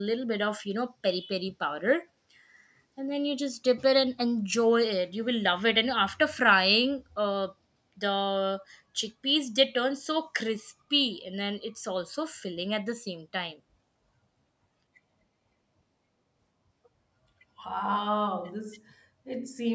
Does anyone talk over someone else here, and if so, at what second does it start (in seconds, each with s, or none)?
none